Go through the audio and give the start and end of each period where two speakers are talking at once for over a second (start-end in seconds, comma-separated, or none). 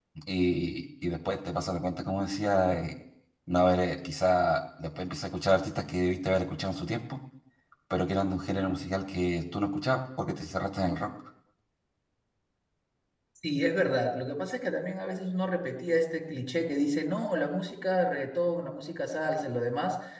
none